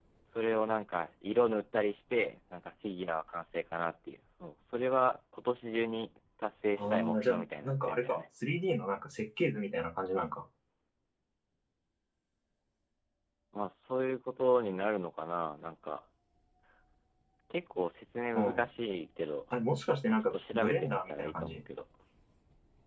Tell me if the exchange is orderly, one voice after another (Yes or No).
No